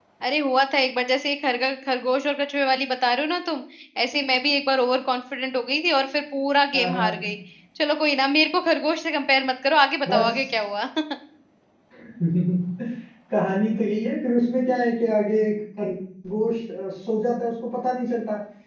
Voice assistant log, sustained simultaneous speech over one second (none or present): none